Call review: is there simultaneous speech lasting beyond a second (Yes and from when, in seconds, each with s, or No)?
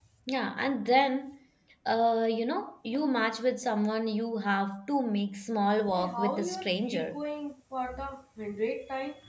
Yes, from 5.9 s